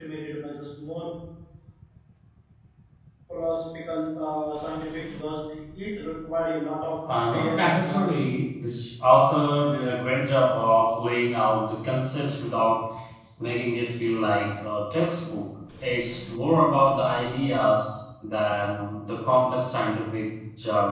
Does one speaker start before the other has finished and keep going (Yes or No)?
Yes